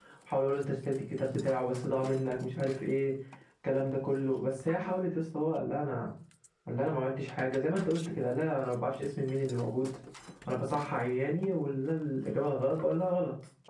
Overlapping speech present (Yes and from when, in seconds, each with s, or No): No